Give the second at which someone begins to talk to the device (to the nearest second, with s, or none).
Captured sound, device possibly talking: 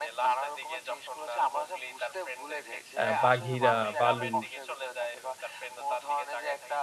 3 s